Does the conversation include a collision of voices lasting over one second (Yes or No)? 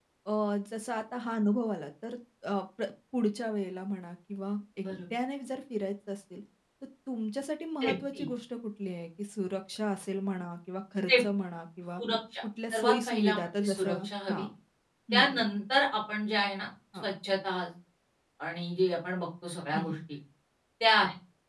Yes